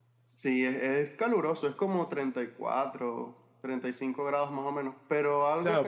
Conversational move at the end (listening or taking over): taking over